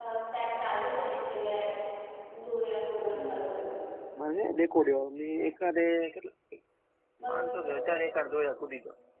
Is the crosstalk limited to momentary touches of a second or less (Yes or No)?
Yes